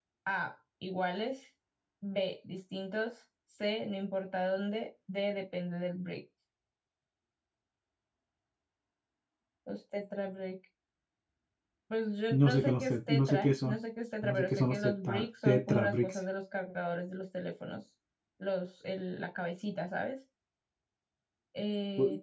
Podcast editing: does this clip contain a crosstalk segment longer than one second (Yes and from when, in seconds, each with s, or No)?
Yes, from 12.3 s